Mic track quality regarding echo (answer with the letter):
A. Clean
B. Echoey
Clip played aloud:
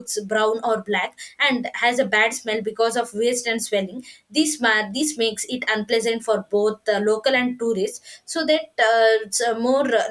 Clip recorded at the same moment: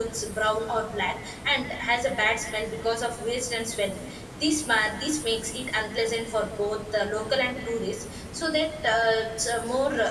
B